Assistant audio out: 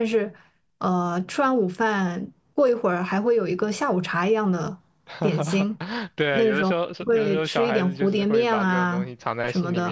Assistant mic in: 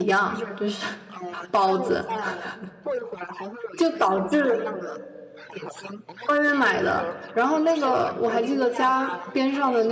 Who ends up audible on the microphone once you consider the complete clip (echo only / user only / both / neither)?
both